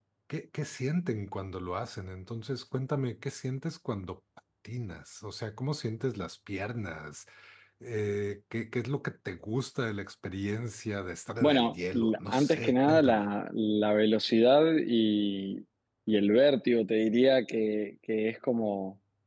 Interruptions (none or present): present